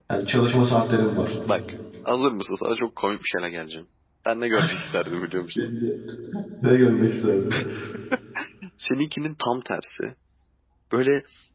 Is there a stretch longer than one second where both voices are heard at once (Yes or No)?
No